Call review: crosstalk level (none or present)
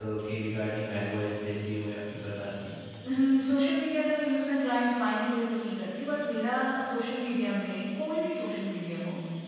none